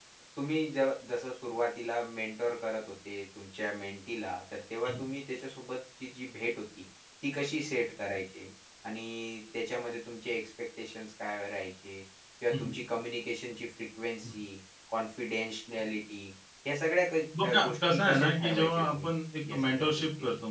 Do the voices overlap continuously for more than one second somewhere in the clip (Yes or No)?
Yes